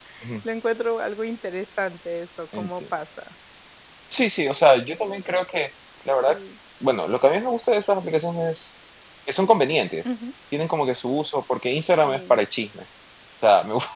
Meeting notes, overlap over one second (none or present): none